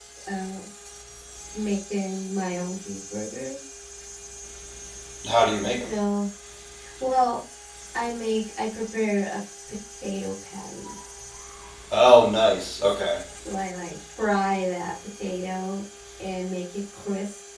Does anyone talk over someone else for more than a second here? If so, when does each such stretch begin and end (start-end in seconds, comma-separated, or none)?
none